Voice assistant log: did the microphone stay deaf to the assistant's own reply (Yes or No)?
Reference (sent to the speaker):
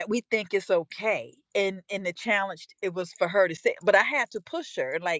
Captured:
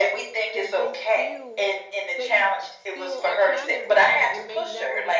No